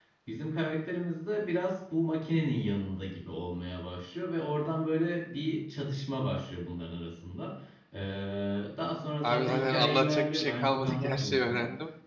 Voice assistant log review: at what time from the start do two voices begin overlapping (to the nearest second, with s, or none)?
9 s